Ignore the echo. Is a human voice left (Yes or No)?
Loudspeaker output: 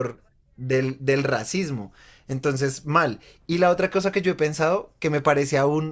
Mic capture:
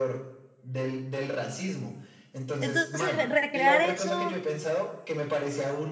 Yes